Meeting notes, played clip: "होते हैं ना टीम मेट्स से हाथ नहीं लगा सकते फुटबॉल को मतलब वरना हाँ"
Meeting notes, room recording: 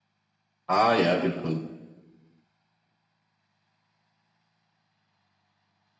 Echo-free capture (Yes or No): Yes